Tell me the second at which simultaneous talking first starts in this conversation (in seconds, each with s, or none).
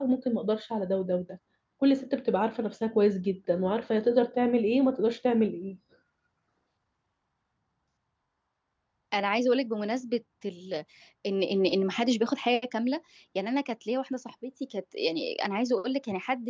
none